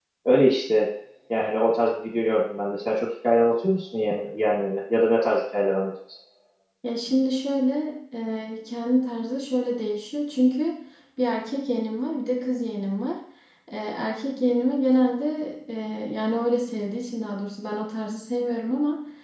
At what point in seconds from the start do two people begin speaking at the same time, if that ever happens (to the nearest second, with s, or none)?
none